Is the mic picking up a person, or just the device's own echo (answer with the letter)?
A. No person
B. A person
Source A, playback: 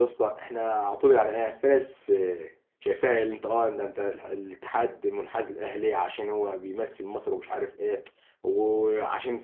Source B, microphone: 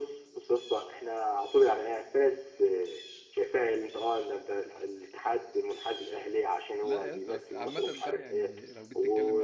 B